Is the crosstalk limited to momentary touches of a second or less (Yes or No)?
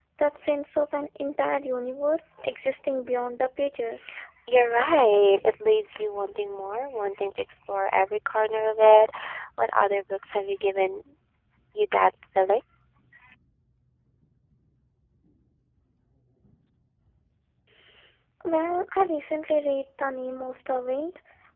Yes